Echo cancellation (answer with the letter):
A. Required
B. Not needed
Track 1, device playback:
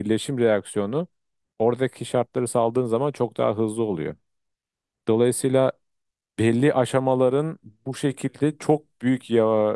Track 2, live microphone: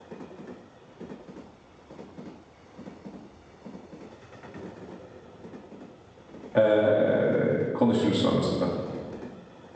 B